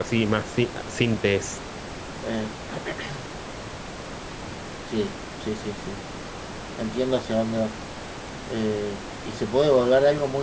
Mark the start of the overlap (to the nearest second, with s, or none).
none